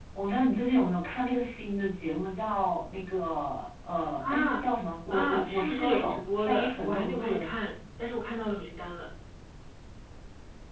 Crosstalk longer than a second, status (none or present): present